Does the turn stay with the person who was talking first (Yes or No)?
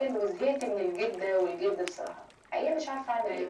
No